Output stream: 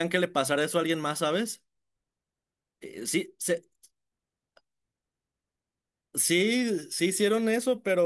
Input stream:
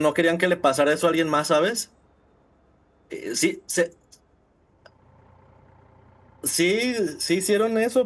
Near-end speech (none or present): none